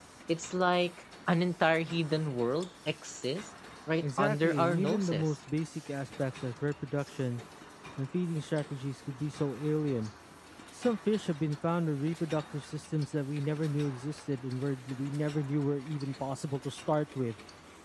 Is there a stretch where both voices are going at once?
Yes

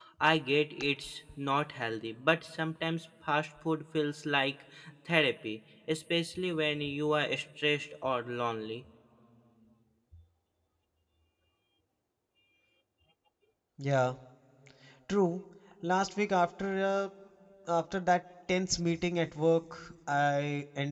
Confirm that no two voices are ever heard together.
Yes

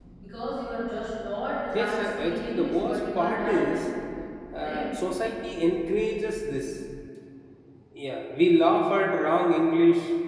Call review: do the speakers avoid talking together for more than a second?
No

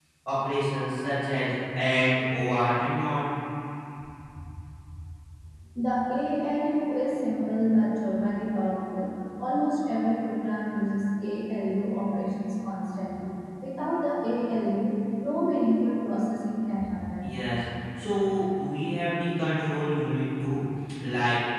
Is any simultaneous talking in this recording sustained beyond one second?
No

